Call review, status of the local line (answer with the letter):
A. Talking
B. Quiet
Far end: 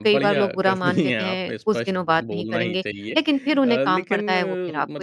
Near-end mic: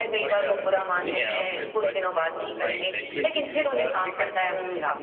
A